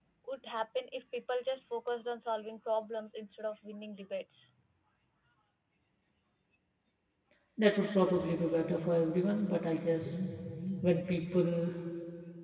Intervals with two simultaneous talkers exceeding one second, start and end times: none

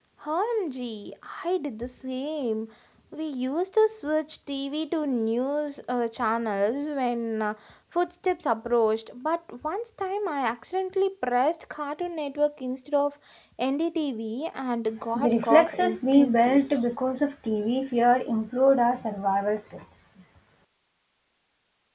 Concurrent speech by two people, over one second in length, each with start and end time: 15.1-16.6

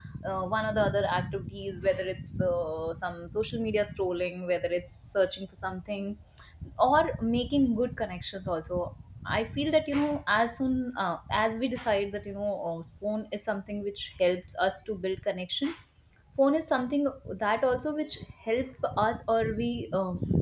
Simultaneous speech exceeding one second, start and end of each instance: none

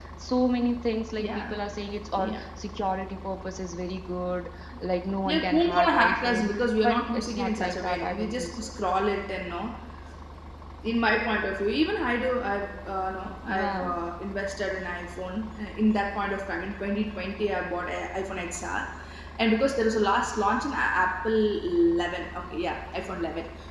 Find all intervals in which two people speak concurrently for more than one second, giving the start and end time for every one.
5.2-6.5, 6.9-8.7

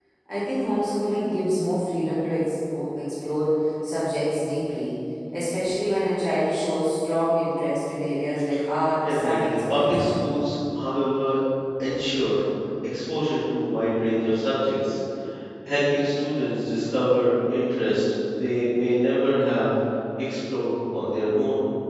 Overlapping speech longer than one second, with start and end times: 9.0-10.3

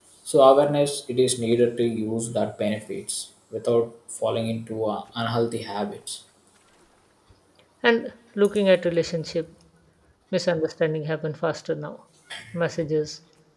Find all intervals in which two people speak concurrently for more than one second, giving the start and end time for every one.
none

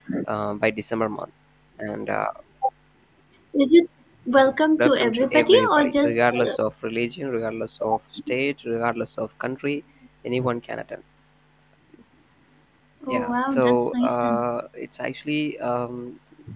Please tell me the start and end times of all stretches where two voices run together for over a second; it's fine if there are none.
4.6-6.5, 13.1-14.4

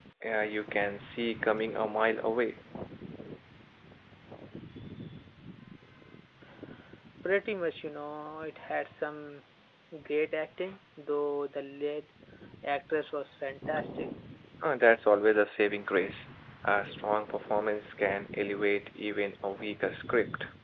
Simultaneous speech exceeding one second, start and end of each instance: none

